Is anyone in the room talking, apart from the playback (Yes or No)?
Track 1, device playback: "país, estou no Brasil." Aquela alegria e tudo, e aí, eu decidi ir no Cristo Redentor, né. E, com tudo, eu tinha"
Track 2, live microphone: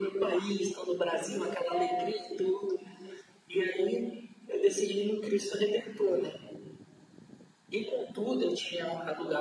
Yes